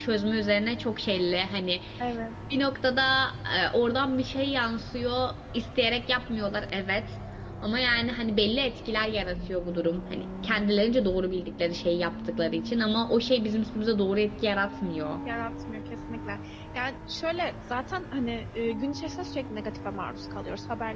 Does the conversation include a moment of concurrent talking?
No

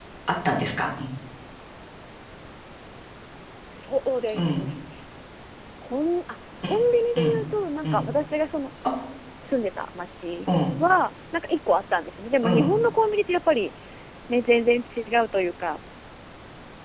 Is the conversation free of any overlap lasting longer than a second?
Yes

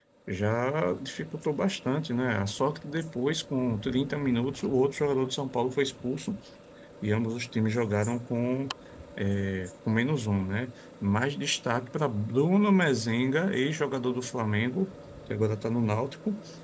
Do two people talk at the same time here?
No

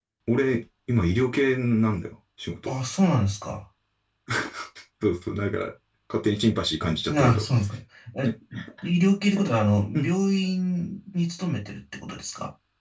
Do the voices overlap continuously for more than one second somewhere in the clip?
No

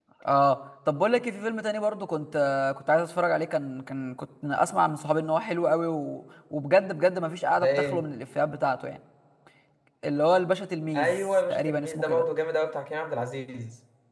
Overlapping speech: Yes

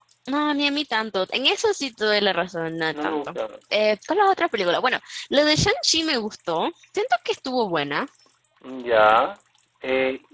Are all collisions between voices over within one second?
Yes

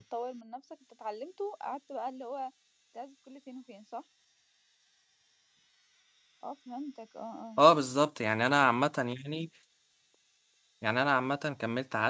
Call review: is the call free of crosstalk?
Yes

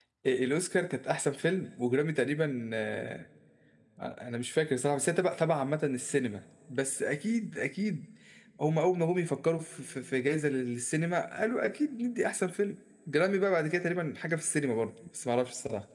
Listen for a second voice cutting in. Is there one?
No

